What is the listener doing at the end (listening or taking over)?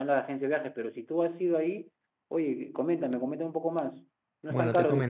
taking over